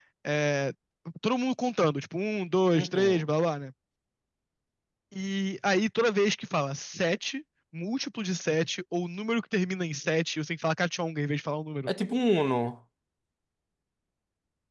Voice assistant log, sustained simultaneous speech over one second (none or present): none